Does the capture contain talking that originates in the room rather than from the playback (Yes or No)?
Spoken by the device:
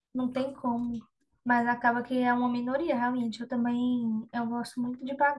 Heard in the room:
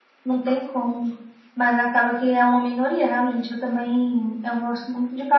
No